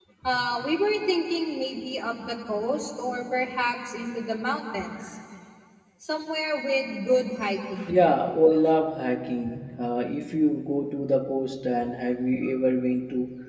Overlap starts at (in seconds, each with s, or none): none